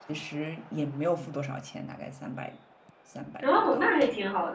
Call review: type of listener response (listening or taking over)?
taking over